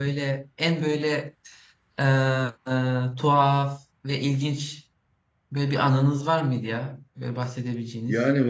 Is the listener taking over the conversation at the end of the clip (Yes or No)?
Yes